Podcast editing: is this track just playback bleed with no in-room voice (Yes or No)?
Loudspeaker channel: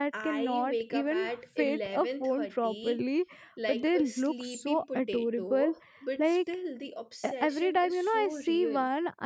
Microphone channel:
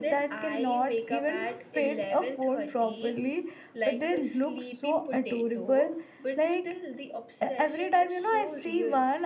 Yes